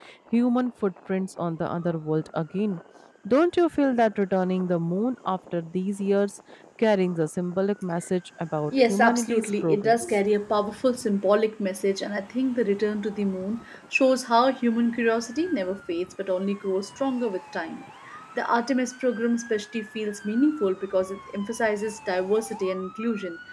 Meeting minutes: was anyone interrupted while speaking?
Yes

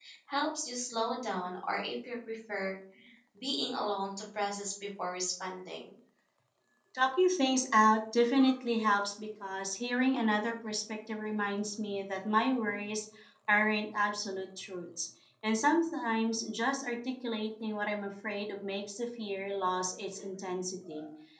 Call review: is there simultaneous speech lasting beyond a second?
No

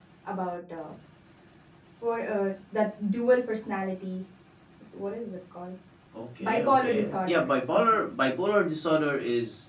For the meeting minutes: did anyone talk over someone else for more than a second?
Yes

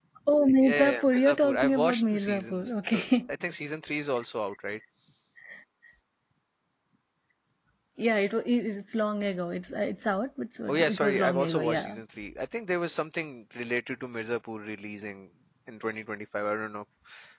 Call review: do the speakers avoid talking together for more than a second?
No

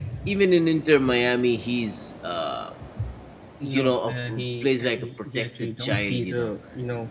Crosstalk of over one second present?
Yes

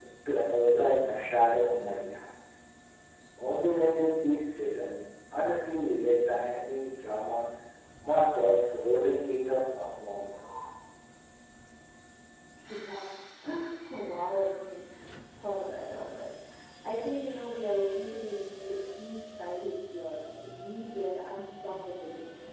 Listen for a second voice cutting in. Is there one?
No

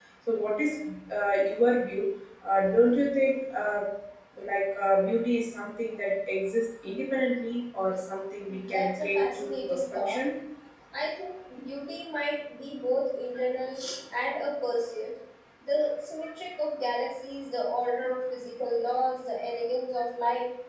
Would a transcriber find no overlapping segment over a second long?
No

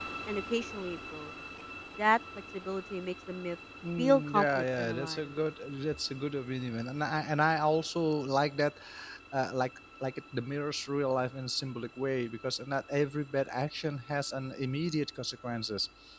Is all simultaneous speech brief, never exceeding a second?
No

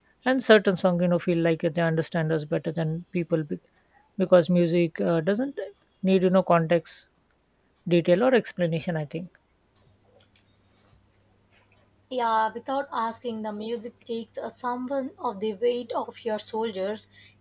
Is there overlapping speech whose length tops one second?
No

